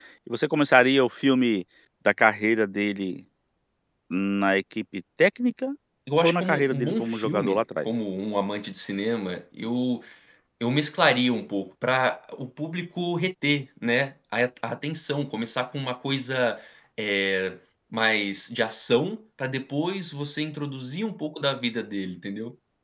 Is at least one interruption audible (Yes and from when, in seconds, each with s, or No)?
Yes, from 6.2 s